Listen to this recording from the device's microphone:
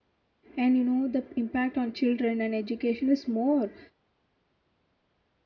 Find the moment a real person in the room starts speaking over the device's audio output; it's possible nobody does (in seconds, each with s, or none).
0.6 s